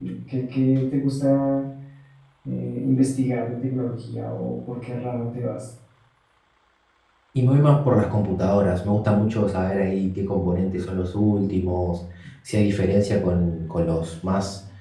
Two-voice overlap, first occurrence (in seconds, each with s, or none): none